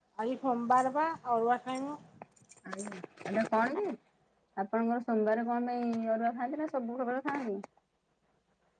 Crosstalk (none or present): none